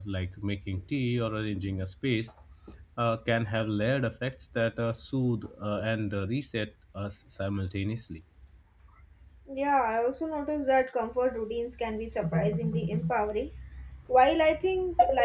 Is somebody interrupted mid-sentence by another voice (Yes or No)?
No